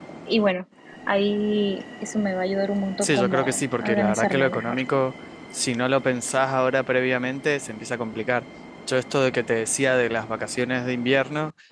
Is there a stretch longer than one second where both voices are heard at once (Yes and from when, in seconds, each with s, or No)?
Yes, from 3.0 s